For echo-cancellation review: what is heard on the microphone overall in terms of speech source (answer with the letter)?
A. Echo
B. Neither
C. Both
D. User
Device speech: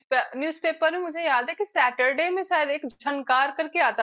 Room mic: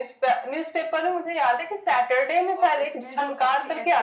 C